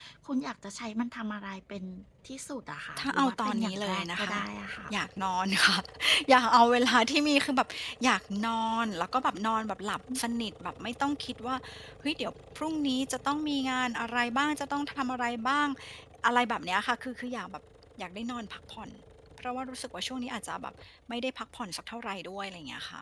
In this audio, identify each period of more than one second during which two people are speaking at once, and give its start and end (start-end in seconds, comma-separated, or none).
3.0-4.4